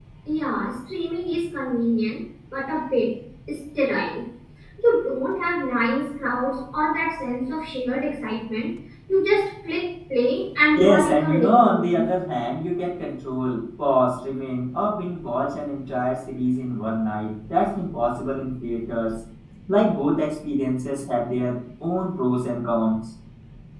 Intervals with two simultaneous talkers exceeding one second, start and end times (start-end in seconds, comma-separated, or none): 10.8-12.0